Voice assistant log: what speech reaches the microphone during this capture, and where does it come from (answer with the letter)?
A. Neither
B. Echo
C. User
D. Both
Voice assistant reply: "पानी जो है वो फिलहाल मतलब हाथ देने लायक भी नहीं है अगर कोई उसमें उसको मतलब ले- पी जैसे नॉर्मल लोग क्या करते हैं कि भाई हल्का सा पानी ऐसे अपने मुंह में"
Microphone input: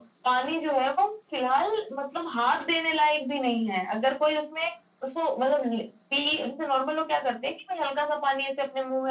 B